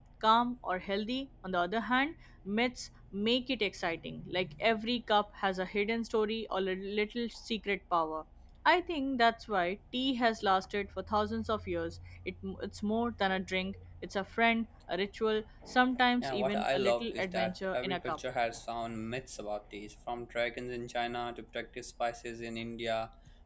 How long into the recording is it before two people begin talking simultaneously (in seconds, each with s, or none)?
16.2 s